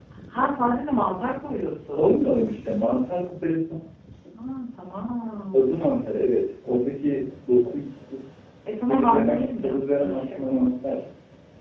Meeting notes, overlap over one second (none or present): present